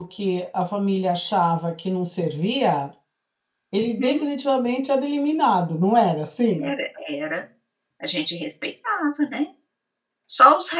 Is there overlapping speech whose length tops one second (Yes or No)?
No